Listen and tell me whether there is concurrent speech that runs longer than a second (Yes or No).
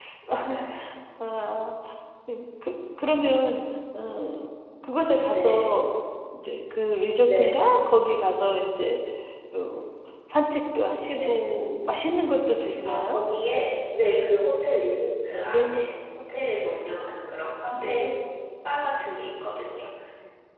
No